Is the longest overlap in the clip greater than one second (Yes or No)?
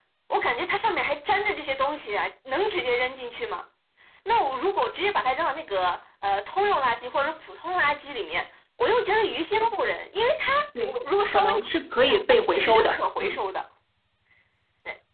Yes